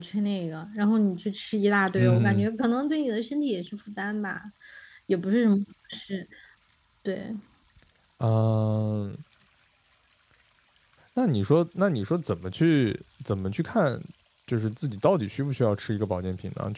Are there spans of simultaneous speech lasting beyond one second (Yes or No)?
No